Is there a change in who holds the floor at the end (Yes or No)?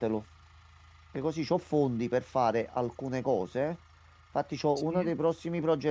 No